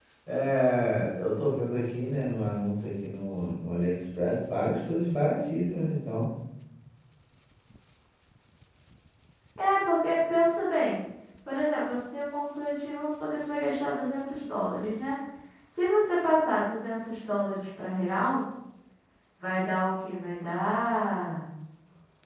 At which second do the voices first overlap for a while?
none

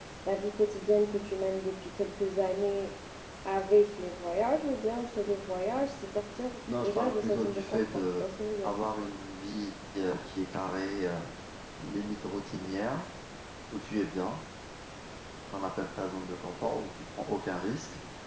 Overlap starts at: 6.8 s

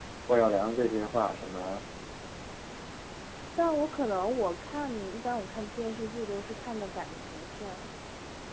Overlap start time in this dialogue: none

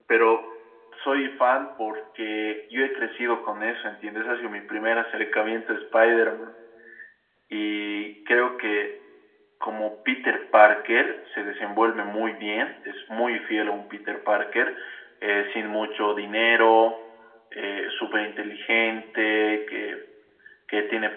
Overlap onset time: none

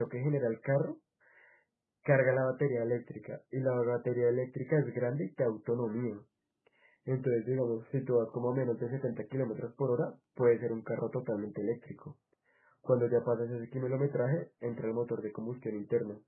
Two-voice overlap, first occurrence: none

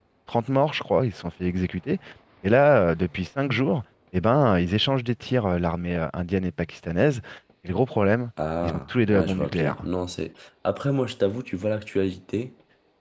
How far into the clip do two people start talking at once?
8.6 s

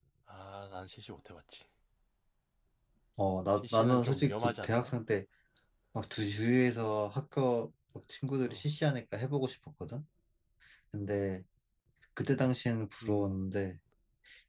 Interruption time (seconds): 3.6 s

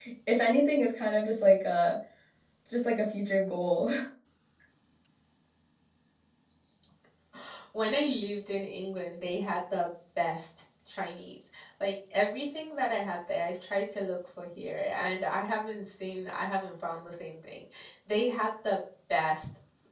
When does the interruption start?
none

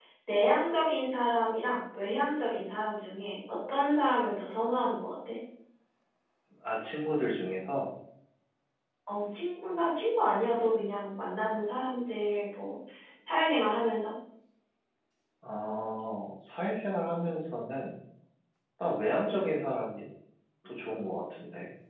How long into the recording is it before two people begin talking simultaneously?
none

